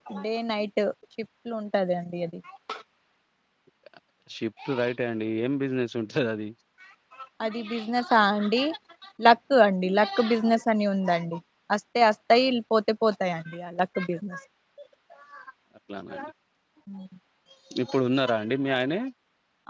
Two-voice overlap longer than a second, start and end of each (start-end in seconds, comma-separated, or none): none